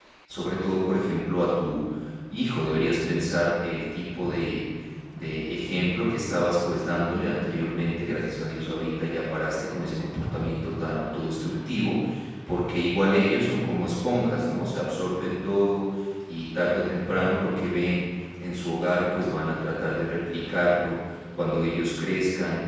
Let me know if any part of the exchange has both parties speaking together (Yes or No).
No